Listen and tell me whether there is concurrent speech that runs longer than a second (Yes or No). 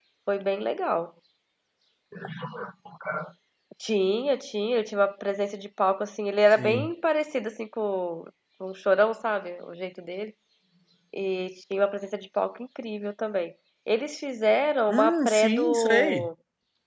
Yes